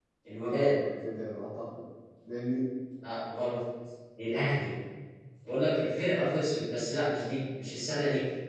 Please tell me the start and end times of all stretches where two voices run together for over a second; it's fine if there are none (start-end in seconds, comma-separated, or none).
none